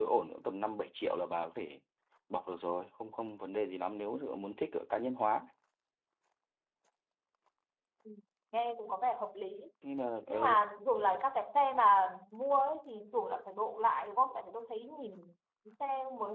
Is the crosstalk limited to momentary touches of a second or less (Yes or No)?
Yes